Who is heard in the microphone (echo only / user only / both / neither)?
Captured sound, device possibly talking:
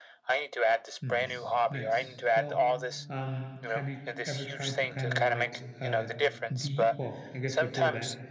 both